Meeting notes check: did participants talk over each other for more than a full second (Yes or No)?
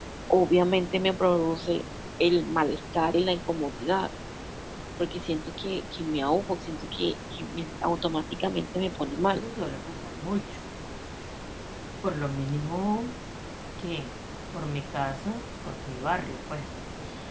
No